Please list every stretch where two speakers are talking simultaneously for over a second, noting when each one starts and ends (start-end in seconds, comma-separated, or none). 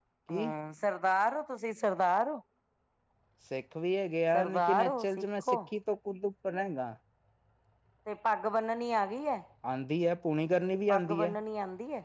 4.3-5.6